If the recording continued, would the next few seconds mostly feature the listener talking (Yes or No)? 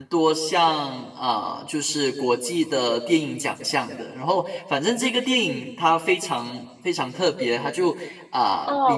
Yes